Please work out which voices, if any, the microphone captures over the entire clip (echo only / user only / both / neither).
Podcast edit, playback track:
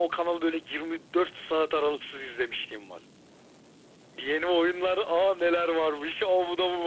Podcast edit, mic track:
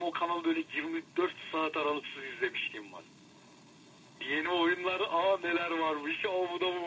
echo only